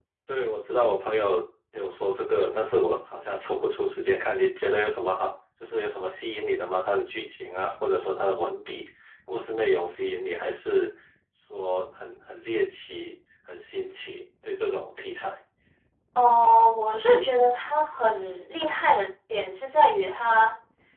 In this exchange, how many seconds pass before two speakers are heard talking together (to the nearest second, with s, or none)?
none